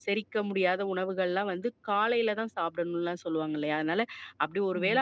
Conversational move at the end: listening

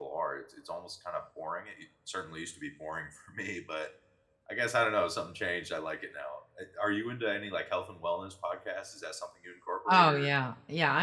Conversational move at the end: taking over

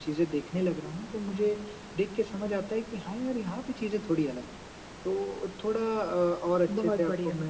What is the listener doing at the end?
listening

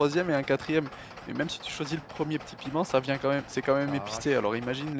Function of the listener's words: listening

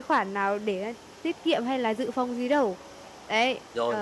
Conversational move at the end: taking over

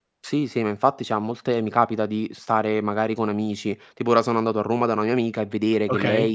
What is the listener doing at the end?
listening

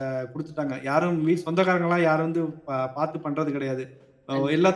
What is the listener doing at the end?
listening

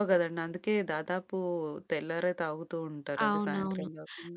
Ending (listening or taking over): taking over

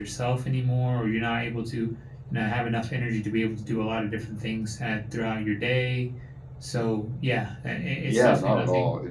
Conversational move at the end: taking over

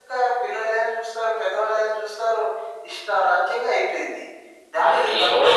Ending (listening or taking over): taking over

